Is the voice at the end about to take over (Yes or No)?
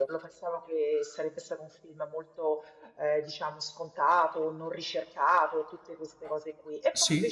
No